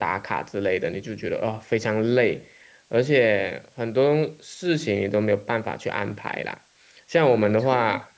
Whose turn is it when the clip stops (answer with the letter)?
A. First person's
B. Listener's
A